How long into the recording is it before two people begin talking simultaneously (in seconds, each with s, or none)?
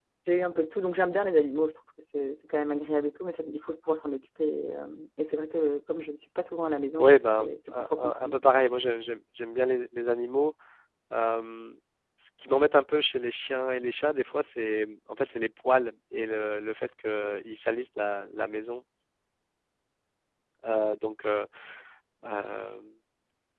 7.0 s